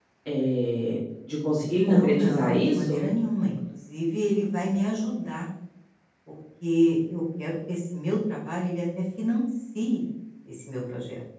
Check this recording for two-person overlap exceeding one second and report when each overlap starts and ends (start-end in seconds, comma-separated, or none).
1.8-3.0